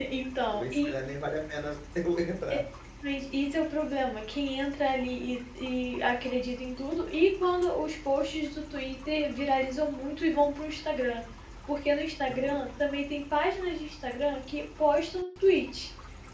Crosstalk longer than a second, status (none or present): none